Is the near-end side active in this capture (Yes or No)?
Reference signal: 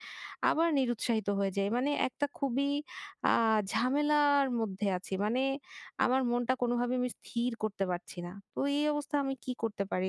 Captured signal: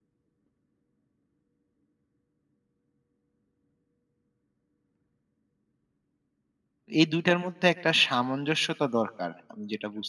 Yes